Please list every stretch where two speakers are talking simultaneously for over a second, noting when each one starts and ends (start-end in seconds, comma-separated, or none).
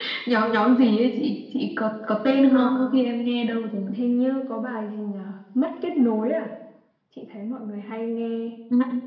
none